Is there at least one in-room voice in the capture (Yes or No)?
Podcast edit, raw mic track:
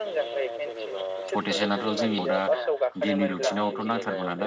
Yes